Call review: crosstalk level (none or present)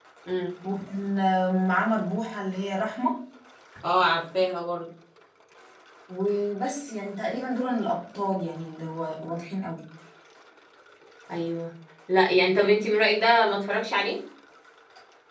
none